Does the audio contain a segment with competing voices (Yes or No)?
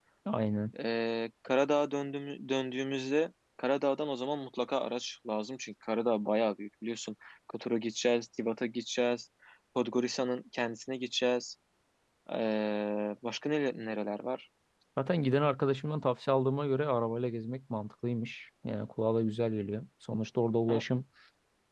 No